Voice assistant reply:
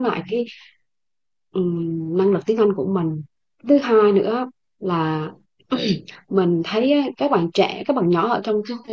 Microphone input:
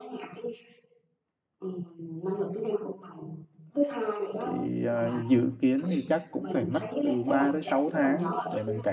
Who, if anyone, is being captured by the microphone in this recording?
both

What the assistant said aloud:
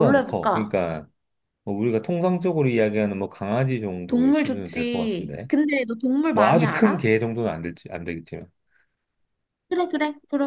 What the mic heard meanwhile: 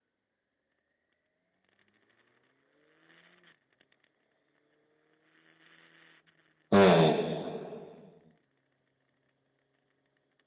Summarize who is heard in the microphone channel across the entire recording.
user only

